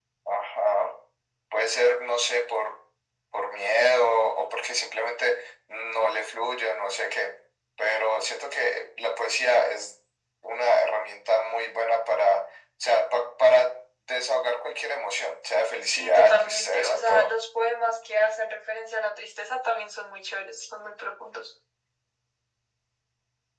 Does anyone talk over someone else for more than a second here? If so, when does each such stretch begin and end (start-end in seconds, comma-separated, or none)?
15.9-17.3